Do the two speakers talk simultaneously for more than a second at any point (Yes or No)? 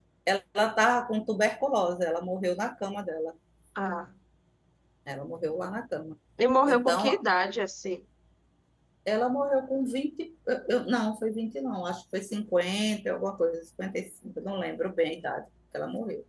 No